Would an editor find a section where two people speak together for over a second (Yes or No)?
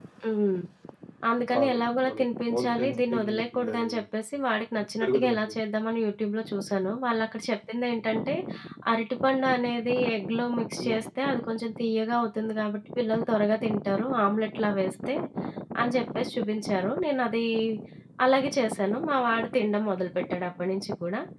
Yes